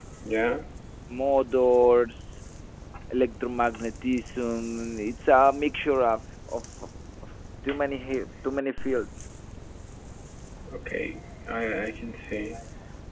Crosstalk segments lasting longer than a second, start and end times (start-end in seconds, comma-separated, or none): none